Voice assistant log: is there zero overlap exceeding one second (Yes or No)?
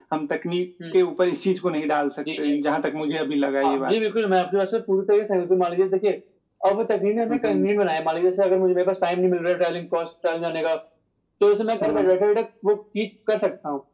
Yes